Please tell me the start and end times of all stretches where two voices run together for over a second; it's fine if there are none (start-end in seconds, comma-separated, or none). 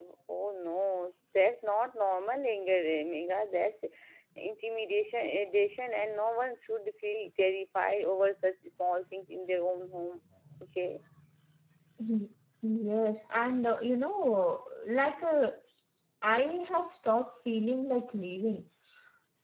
none